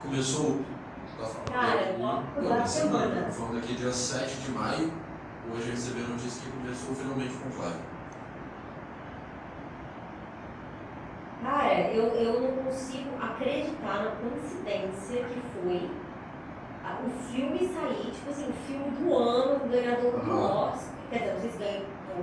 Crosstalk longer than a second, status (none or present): present